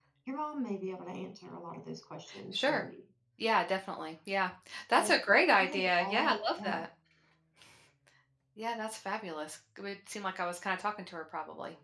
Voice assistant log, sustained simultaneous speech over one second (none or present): present